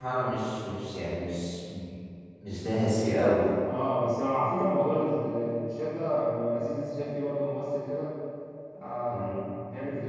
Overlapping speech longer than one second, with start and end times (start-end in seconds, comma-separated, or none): none